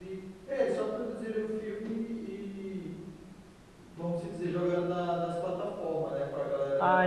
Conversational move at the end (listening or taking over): taking over